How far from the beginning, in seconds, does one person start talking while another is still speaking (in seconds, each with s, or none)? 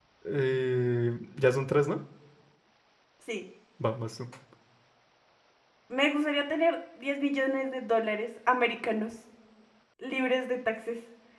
none